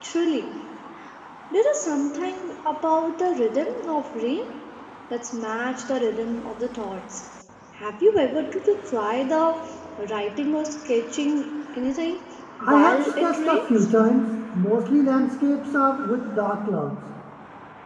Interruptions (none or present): present